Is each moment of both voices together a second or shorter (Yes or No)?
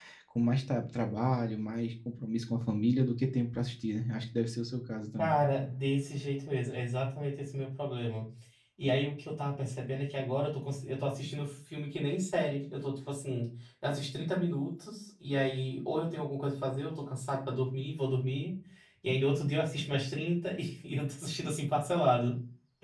Yes